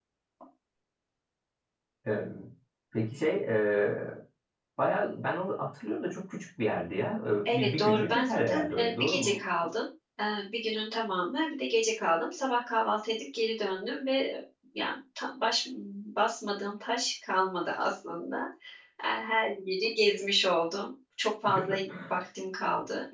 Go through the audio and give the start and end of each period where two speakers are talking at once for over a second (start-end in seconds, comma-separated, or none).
7.5-9.4